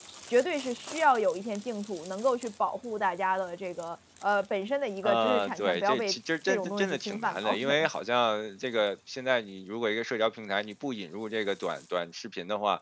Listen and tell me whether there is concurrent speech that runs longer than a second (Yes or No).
Yes